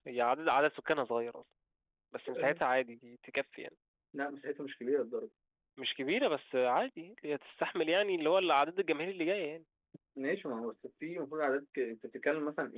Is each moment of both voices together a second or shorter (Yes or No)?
Yes